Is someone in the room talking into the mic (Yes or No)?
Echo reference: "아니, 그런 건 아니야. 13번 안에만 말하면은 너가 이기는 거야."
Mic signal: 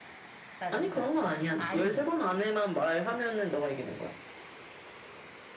Yes